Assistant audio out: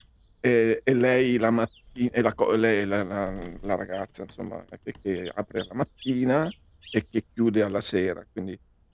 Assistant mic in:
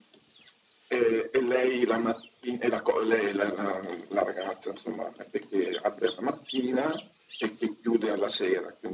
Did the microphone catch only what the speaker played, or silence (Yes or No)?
Yes